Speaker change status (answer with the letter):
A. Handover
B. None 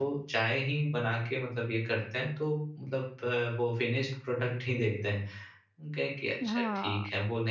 A